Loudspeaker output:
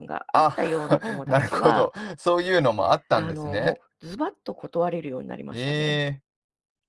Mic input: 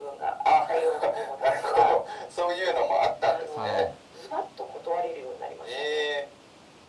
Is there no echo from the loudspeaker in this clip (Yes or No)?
No